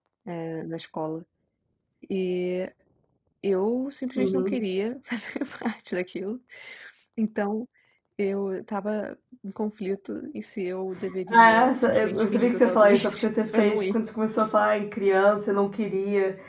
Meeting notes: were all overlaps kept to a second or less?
No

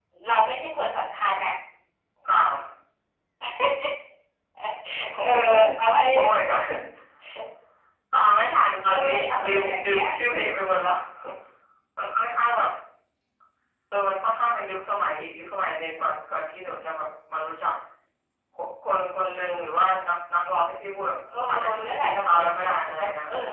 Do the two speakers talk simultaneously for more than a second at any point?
Yes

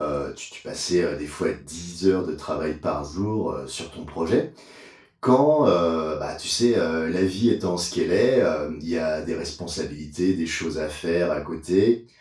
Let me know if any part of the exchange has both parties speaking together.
No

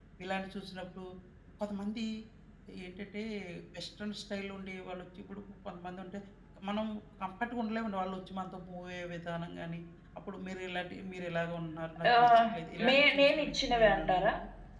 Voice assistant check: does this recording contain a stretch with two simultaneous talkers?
Yes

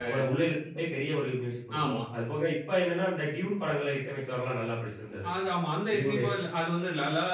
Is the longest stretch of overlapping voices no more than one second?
Yes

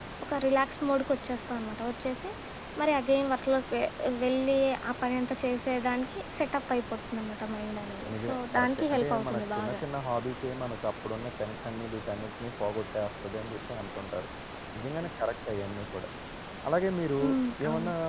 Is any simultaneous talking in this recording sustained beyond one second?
Yes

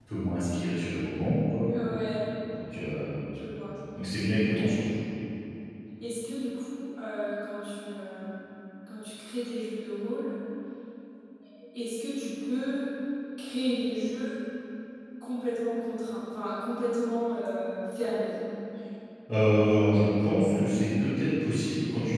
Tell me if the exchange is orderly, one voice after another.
Yes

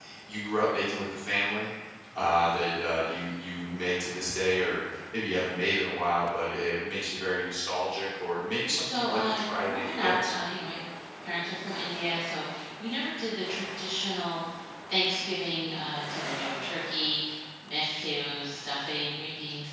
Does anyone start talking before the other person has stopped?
Yes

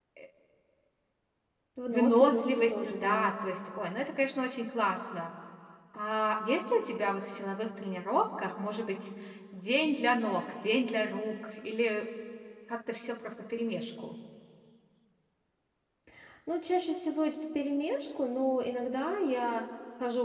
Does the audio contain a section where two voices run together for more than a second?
Yes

